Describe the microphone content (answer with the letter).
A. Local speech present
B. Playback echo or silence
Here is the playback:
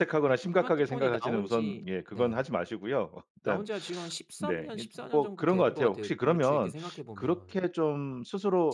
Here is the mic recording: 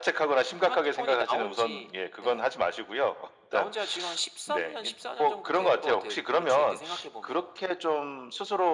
B